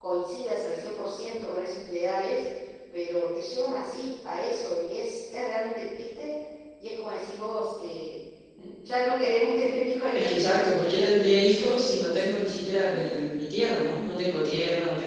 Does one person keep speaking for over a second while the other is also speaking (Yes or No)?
Yes